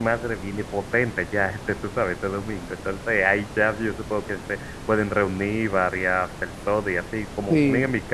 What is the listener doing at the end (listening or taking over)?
listening